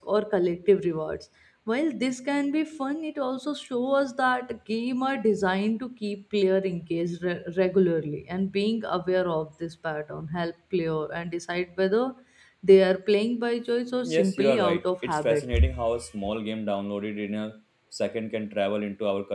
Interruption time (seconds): 14.0 s

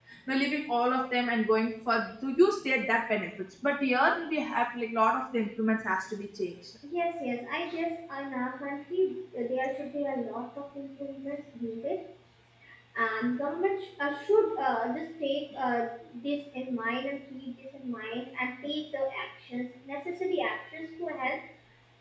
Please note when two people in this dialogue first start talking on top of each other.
none

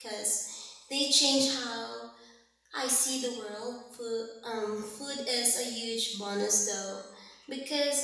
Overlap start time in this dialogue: none

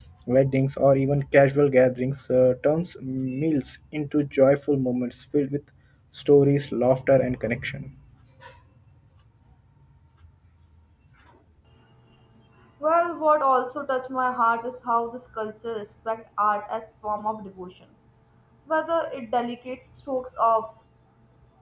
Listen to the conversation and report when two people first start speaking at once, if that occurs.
none

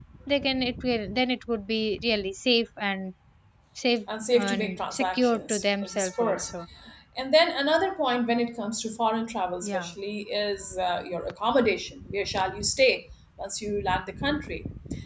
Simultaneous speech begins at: 4.3 s

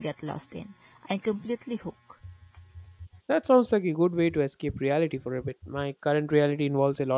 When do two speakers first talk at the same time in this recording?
none

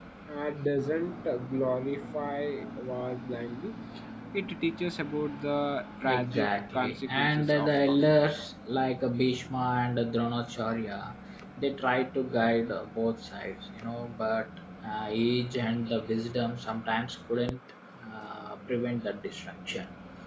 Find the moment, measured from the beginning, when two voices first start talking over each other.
6.0 s

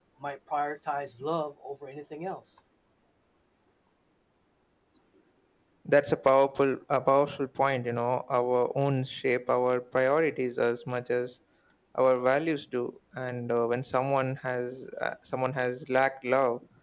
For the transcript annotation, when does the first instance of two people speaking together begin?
none

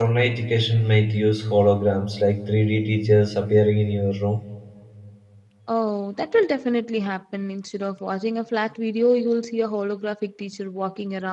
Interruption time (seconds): none

